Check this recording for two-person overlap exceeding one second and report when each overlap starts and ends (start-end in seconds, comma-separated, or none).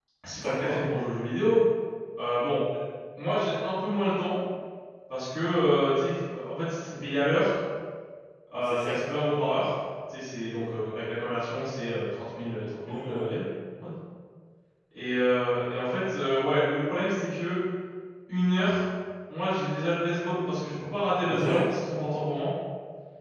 none